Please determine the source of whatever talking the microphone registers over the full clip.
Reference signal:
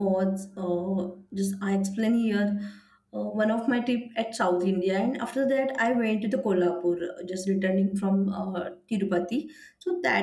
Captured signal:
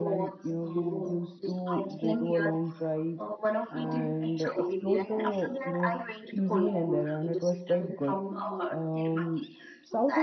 both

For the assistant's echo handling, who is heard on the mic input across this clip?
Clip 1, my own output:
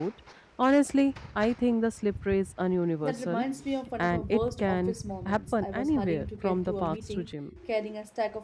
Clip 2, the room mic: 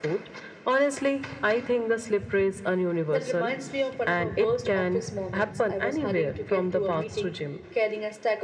echo only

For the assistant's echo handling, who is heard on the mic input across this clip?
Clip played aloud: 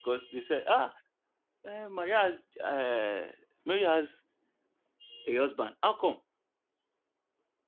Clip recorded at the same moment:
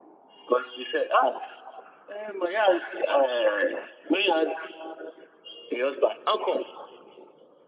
echo only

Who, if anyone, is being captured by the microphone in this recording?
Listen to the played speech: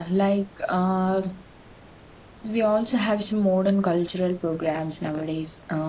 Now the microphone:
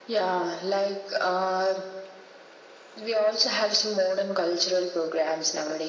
echo only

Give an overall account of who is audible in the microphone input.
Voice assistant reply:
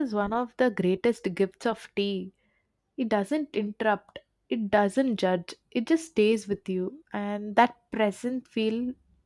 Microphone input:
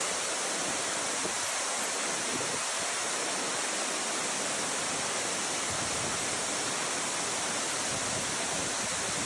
neither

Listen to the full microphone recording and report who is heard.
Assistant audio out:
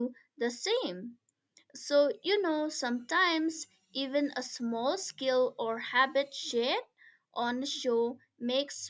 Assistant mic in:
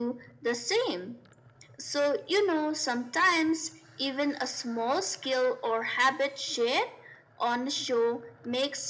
echo only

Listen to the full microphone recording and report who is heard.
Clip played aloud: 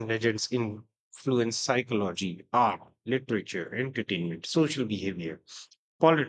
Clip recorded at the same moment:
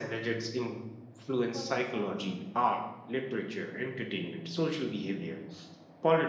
both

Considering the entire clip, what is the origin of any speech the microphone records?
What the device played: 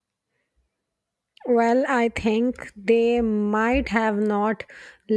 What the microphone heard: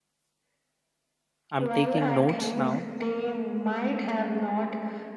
both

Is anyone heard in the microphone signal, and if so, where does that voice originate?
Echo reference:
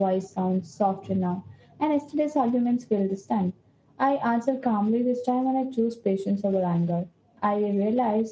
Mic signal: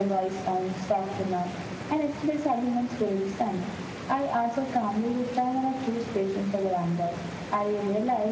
echo only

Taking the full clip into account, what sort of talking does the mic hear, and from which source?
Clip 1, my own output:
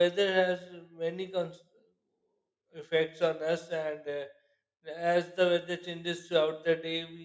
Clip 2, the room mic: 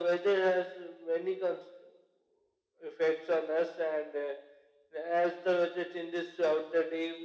echo only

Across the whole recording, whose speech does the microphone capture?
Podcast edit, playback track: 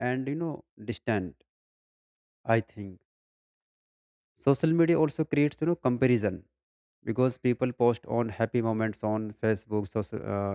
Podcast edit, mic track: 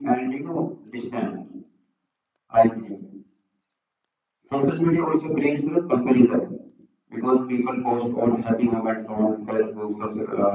echo only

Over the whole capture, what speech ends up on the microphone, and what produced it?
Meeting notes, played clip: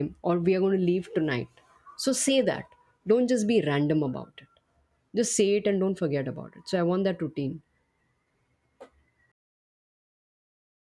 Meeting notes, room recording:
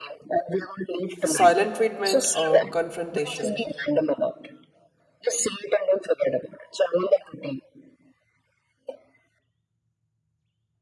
both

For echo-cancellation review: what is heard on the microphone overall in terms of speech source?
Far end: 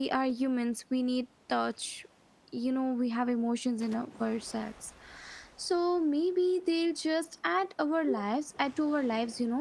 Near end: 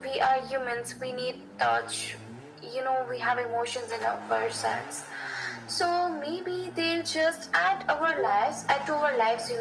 echo only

